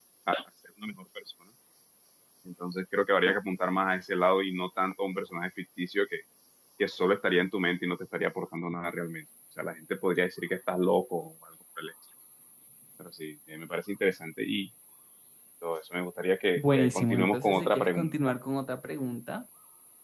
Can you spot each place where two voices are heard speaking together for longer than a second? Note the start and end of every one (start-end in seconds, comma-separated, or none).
16.6-18.1